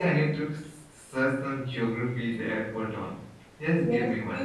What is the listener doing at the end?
taking over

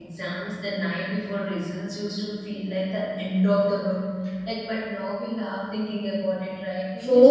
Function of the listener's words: taking over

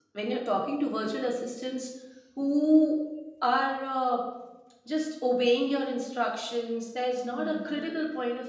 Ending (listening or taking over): listening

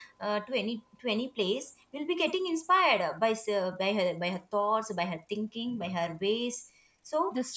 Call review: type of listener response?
listening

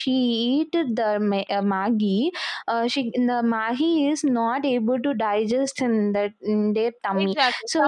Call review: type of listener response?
taking over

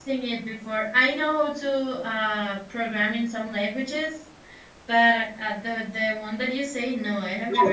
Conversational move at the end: taking over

